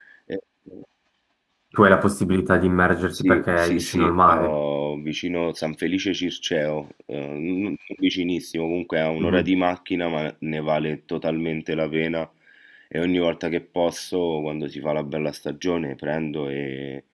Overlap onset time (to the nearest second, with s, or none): 3 s